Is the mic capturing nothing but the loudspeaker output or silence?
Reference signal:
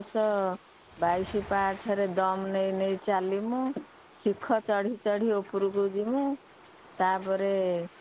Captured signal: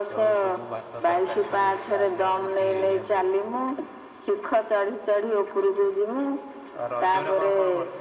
No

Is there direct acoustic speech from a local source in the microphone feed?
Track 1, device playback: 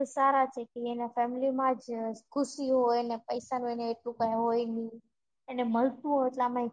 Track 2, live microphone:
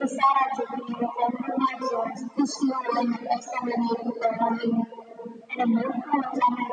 No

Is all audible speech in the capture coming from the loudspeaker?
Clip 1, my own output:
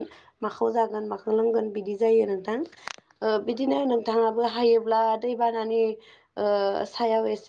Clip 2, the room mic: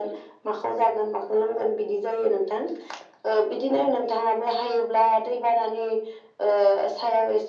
Yes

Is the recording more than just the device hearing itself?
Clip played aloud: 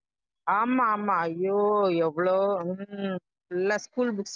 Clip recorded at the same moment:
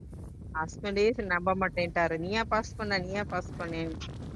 Yes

